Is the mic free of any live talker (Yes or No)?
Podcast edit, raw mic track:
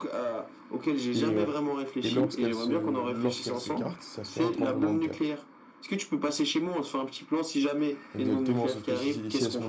No